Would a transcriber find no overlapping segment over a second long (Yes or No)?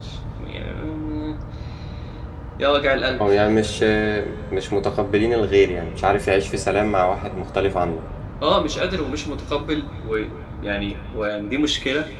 Yes